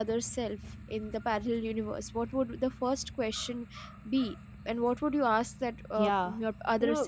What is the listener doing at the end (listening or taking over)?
taking over